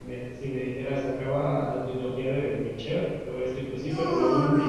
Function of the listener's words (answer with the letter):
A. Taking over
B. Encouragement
A